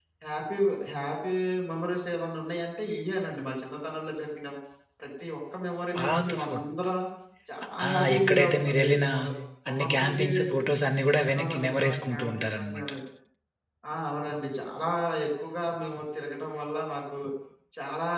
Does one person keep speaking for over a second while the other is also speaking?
Yes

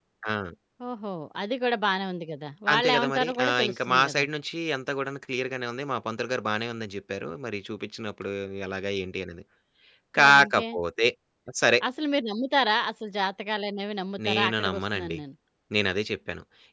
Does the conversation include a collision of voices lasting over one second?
Yes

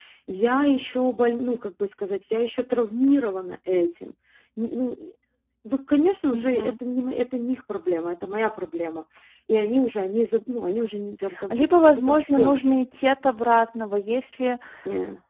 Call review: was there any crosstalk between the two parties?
Yes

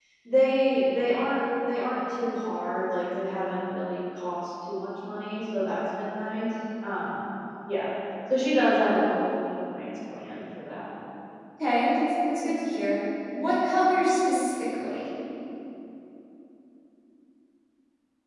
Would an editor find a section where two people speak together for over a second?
No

